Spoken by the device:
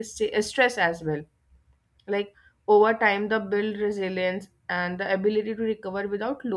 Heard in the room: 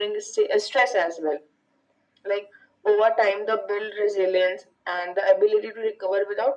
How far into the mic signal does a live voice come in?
none

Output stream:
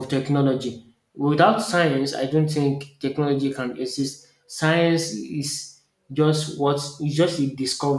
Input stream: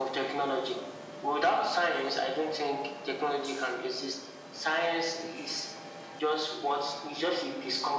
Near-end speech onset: none

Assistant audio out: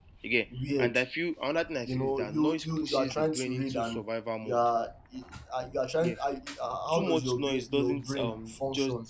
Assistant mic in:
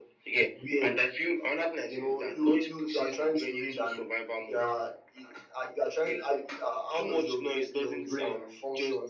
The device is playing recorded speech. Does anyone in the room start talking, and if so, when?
none

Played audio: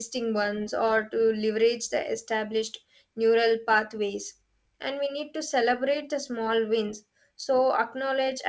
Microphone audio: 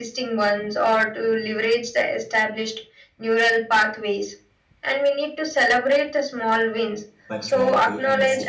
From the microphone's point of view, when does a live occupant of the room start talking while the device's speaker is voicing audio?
7.3 s

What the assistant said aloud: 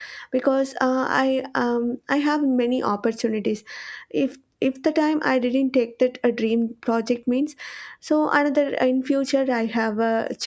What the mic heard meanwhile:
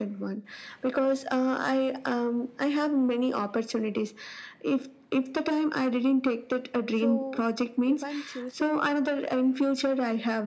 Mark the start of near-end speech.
6.9 s

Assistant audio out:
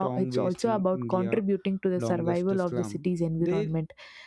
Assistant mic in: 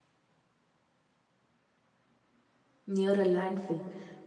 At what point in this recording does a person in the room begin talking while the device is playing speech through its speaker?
2.9 s

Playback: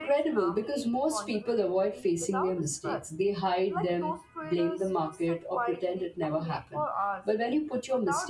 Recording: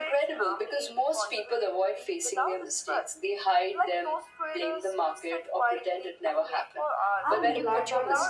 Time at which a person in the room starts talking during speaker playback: 7.2 s

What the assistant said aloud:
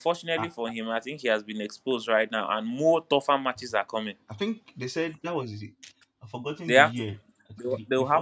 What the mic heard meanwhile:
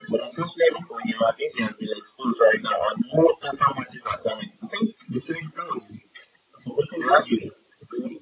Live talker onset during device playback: none

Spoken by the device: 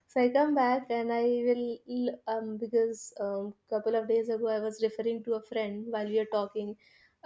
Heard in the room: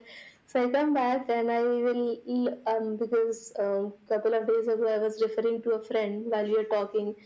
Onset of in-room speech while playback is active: none

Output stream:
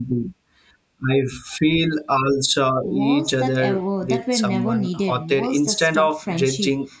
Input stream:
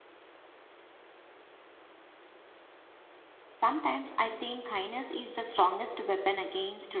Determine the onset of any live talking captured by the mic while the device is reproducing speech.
3.5 s

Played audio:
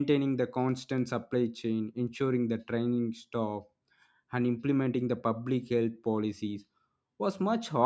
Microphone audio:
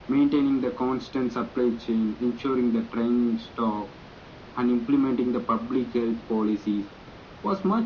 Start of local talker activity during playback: none

